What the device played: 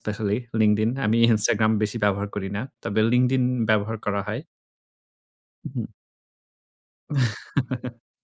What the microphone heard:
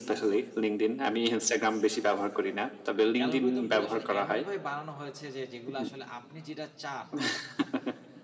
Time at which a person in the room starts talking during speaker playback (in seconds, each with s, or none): 3.2 s